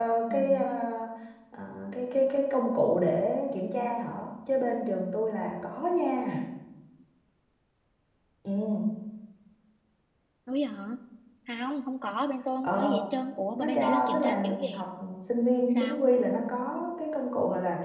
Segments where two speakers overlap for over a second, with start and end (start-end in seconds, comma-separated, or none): 13.6-14.8